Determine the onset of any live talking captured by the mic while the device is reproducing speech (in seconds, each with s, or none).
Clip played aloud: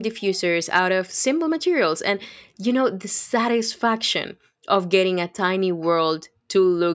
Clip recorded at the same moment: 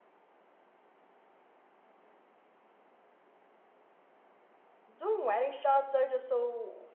4.9 s